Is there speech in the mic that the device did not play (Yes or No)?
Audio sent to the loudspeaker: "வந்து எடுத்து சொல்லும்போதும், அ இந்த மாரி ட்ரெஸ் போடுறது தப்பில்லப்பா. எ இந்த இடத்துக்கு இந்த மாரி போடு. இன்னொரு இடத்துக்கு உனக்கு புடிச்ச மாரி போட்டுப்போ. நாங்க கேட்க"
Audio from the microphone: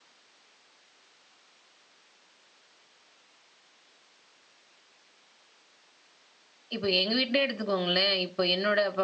Yes